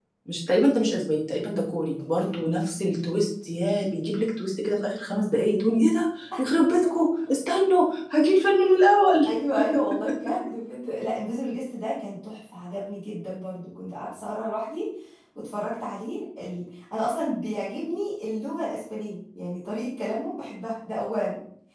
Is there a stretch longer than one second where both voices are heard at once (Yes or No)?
No